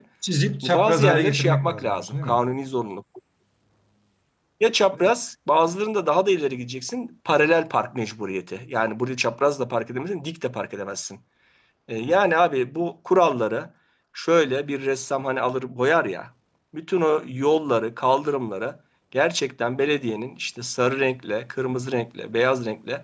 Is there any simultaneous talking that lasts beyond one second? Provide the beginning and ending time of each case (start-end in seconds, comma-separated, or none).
0.6-2.4